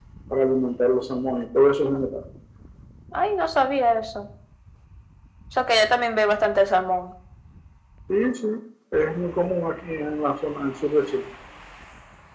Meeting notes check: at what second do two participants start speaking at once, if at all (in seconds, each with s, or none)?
none